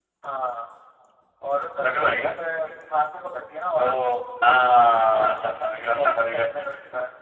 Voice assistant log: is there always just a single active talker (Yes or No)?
No